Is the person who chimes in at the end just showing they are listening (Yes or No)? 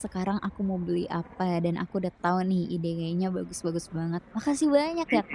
No